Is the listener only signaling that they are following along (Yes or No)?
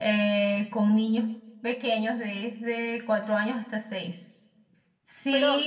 Yes